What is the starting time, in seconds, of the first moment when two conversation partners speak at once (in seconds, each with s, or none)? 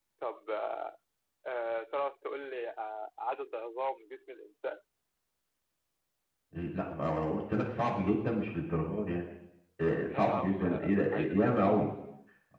10.0 s